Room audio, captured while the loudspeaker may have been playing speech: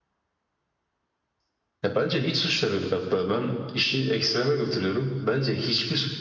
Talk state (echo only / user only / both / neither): echo only